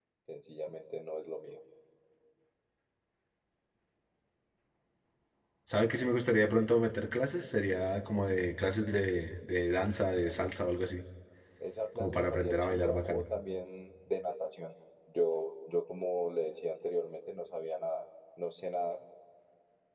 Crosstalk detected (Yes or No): Yes